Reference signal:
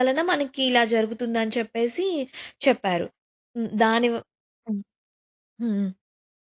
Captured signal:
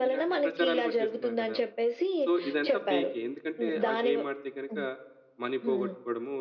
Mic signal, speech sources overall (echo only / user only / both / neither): both